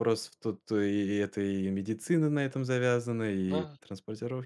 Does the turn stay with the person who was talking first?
Yes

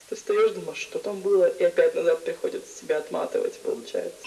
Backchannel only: No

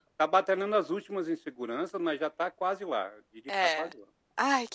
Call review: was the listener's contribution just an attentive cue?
No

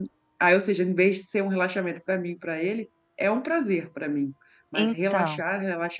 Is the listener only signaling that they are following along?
Yes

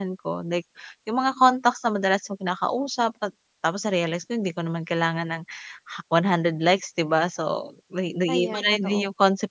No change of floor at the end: Yes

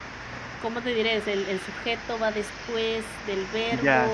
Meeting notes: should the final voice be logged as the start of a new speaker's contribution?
Yes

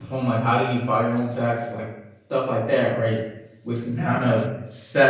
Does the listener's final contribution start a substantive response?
No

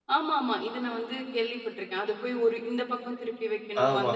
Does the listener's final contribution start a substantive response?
Yes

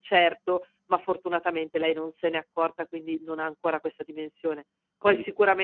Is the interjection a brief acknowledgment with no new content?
Yes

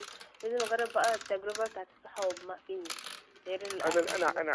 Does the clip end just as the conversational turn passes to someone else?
Yes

